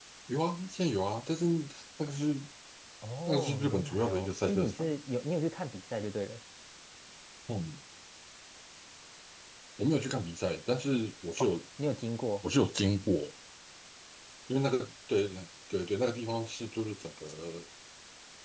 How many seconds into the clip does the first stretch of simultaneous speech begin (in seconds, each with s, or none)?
3.3 s